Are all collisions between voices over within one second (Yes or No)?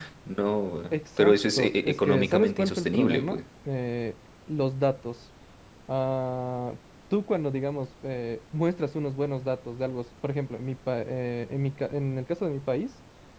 No